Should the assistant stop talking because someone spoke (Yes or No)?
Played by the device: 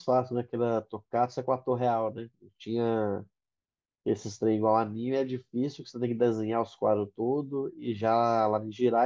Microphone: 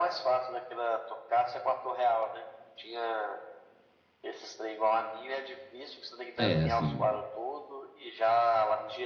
Yes